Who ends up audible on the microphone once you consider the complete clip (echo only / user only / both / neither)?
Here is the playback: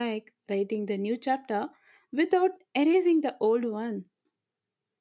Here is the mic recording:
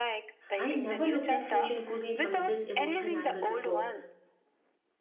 both